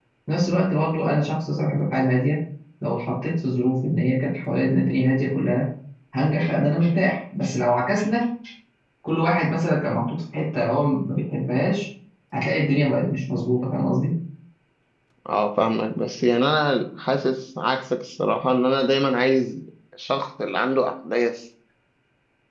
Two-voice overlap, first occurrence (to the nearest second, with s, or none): none